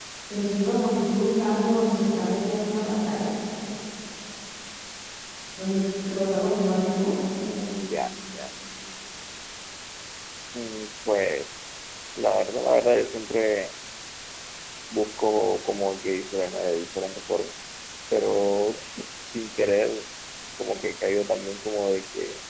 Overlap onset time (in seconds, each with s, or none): none